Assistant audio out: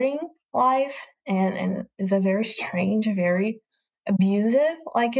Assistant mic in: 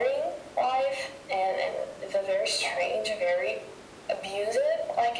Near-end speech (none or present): none